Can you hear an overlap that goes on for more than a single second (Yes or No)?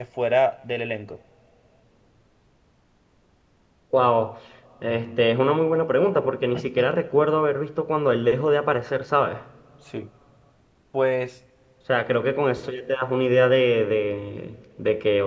No